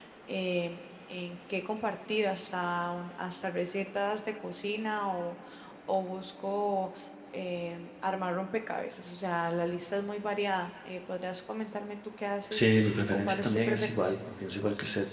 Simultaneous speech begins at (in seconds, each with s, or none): 12.5 s